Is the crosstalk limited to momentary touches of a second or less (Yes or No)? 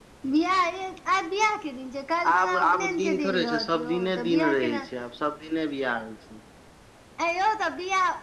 No